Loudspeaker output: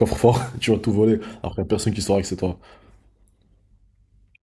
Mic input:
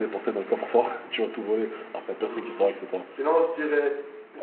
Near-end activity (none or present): present